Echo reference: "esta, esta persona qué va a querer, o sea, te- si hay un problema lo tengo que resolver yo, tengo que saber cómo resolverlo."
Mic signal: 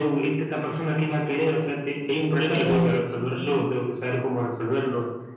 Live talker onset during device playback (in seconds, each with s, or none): 2.5 s